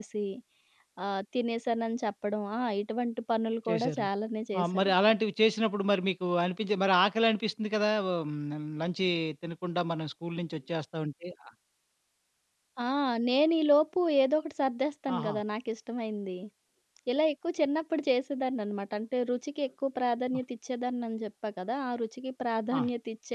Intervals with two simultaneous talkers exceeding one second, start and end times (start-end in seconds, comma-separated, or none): none